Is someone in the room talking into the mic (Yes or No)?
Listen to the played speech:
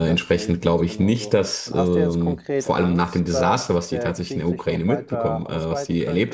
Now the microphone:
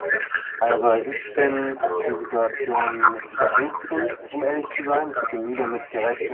Yes